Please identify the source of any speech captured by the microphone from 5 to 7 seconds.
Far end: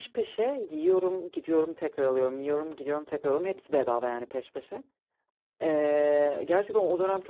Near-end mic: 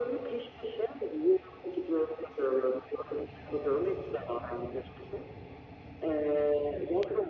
echo only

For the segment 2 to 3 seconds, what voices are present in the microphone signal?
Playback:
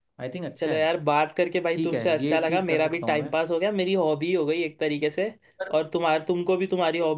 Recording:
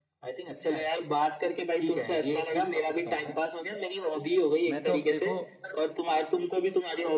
echo only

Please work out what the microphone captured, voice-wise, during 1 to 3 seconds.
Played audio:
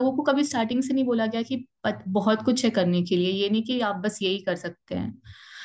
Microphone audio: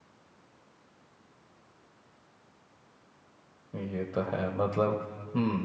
neither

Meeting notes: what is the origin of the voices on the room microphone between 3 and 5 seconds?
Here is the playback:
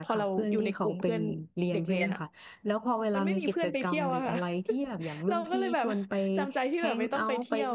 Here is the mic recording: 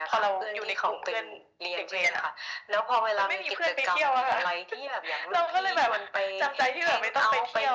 echo only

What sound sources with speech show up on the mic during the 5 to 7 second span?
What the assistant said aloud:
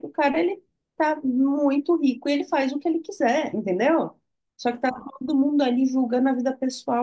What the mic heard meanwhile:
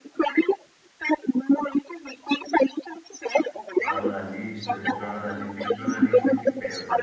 both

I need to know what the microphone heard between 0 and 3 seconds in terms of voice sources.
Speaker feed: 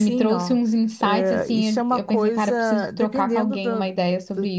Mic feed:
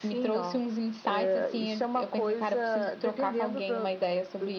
echo only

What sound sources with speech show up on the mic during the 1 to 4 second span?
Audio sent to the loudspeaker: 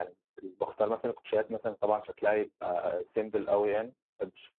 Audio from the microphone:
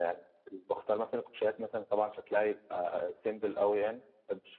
echo only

